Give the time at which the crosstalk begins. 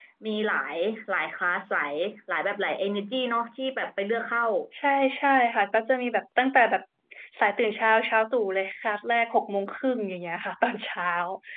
none

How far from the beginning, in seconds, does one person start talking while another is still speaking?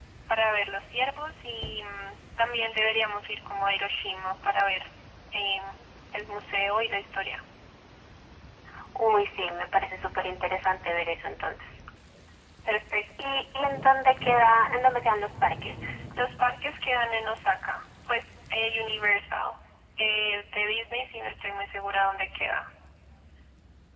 none

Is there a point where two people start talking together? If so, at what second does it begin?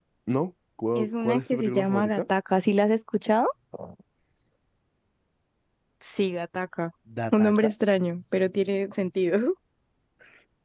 0.9 s

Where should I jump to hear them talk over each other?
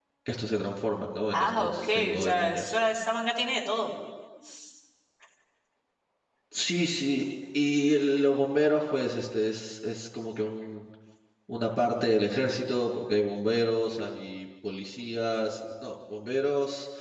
1.3 s

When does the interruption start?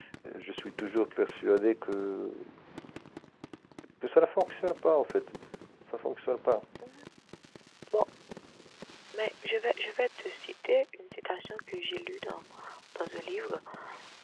none

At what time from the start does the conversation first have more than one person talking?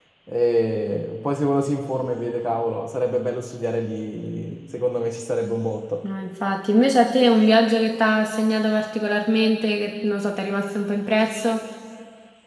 none

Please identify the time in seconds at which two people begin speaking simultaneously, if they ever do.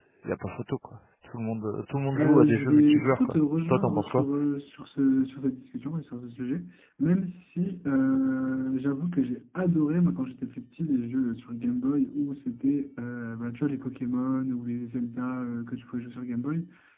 2.1 s

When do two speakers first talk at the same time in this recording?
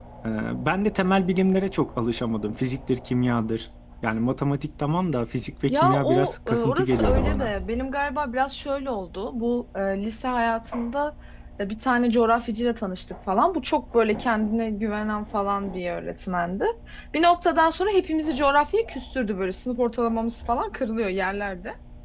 5.7 s

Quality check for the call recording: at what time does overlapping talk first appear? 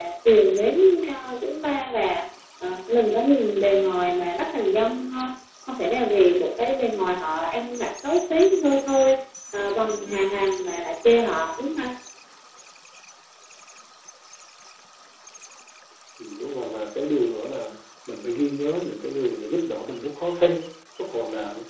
none

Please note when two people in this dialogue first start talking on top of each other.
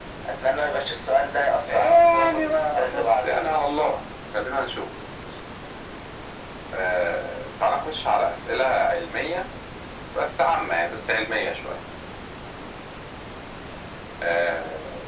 1.7 s

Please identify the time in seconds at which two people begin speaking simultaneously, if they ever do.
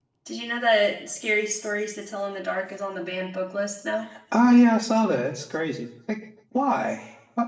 none

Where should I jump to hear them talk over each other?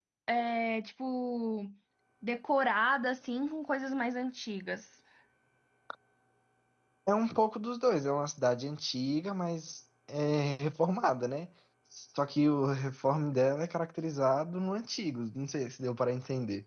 none

